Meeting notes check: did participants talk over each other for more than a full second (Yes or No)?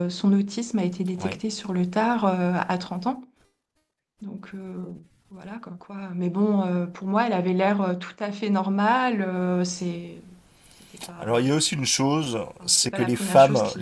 Yes